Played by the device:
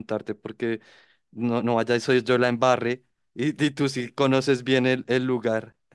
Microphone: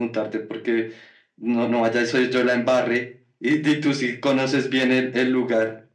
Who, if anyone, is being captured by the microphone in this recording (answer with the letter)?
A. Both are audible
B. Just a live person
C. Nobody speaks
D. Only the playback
D